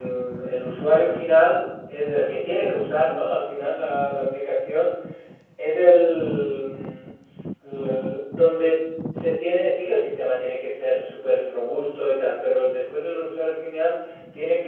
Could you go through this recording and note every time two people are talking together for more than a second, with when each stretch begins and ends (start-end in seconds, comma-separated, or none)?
none